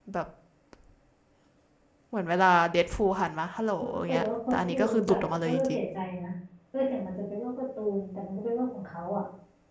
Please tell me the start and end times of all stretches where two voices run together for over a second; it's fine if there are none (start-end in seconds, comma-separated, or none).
3.8-5.8